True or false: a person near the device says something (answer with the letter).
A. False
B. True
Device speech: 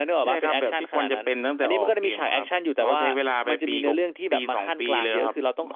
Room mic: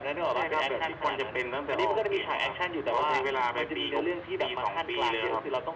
A